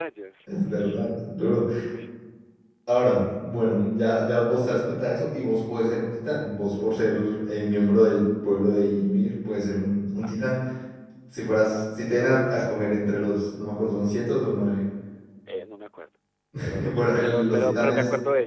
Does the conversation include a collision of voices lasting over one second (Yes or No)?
Yes